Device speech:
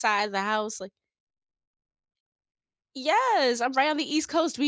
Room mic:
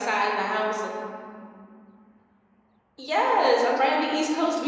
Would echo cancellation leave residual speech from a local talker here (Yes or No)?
No